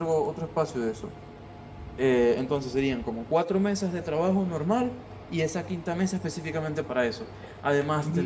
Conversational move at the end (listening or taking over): taking over